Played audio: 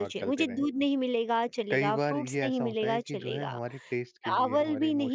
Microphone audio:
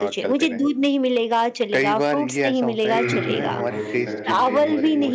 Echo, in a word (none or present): present